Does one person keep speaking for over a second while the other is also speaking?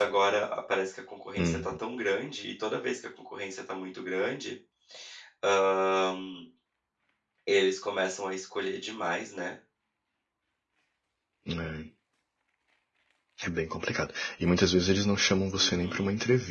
No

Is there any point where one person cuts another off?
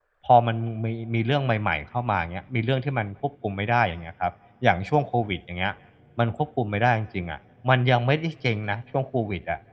No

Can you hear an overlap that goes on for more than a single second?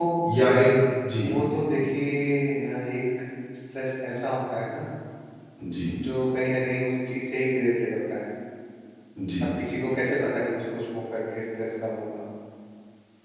No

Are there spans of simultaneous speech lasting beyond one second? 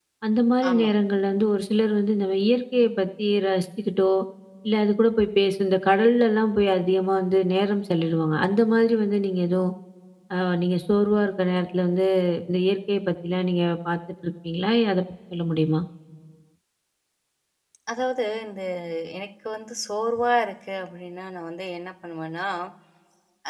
No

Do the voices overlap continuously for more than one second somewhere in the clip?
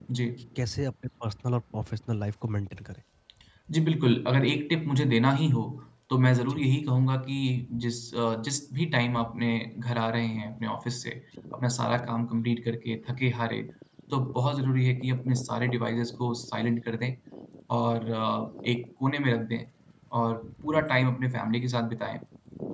No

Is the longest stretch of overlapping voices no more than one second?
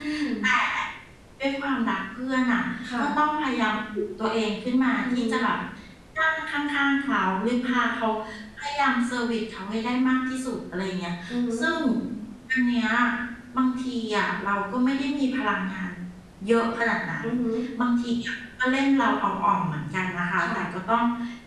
Yes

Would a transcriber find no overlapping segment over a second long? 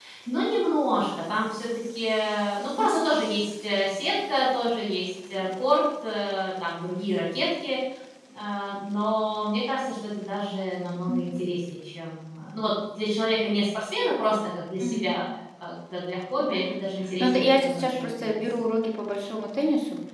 No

